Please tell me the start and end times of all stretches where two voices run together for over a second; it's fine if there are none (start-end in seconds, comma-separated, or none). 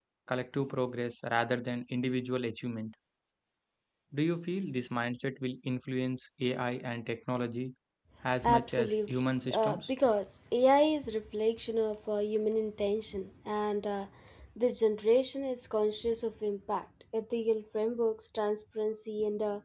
8.4-9.9